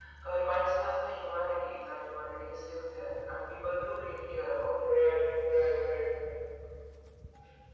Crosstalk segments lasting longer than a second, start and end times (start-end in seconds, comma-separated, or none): none